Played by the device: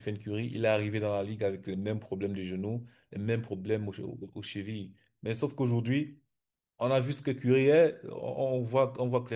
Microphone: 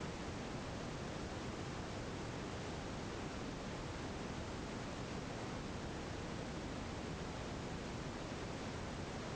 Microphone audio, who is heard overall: neither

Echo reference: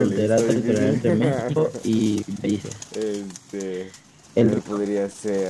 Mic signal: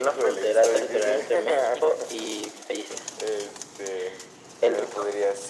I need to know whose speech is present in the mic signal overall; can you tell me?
echo only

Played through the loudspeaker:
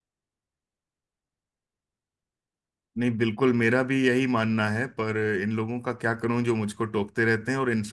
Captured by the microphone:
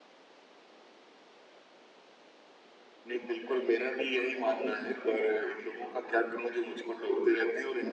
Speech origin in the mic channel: echo only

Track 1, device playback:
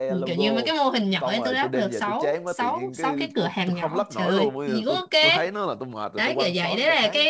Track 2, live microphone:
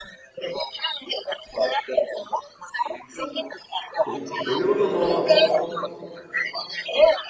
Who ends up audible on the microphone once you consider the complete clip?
both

